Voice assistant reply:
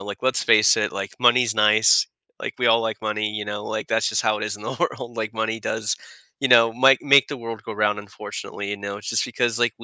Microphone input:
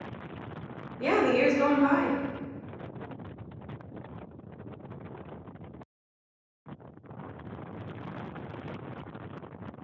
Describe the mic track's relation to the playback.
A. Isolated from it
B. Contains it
A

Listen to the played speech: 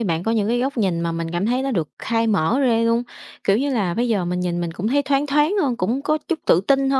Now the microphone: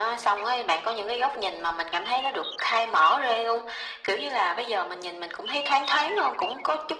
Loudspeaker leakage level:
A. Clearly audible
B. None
A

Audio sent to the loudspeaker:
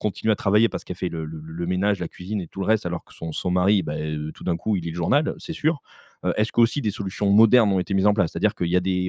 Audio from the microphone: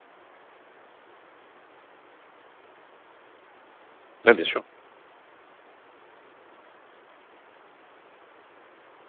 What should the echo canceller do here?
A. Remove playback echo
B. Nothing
B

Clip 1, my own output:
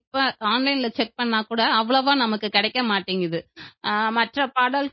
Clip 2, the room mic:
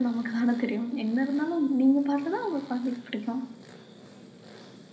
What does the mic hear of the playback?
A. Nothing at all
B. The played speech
A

